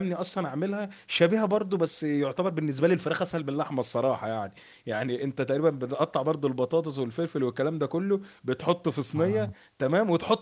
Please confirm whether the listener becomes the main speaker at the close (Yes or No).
No